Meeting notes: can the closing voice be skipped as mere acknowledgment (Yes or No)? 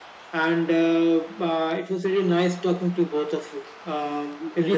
Yes